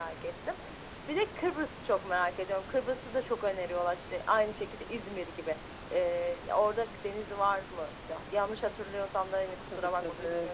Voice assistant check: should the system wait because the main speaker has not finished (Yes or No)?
No